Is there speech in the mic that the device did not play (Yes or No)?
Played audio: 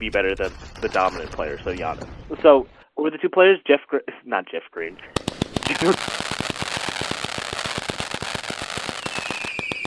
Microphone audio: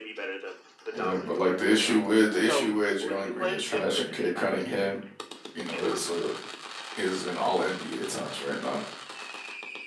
Yes